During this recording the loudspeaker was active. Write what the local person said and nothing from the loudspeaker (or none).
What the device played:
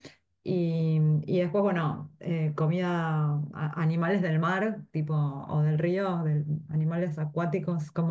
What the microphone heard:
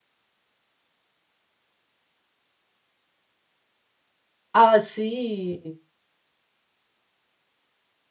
Ah, sí,